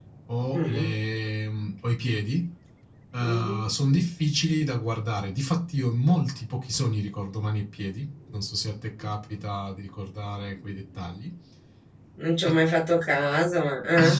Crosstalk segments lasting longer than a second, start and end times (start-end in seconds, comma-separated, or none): none